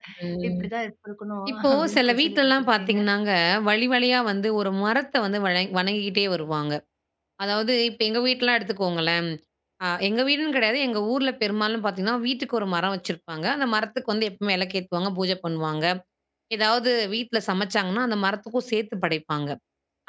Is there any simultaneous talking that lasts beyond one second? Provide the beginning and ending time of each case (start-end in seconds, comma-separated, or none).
1.5-3.0